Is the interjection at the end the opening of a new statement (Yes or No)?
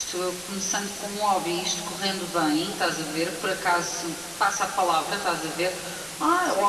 No